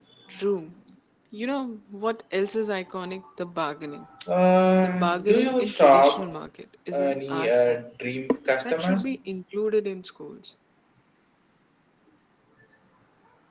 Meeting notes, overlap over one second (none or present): present